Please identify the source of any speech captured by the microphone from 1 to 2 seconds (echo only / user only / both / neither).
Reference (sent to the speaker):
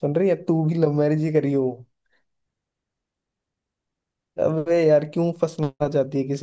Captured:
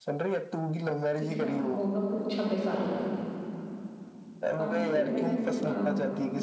both